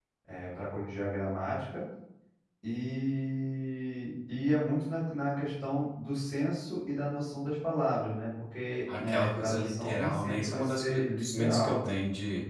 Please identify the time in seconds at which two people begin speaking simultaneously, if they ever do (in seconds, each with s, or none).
8.9 s